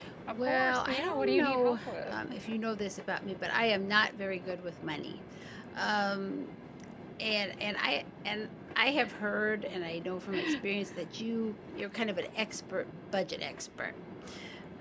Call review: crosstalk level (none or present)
present